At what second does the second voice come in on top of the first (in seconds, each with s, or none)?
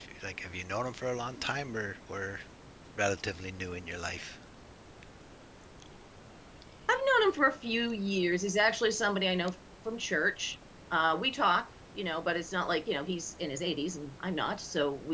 none